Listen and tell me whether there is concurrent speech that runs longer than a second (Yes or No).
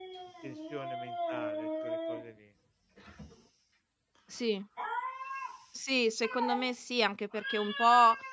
No